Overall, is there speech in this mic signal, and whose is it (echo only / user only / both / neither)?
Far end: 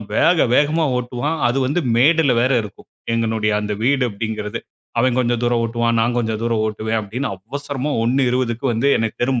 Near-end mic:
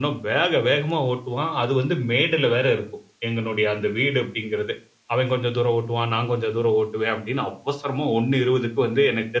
echo only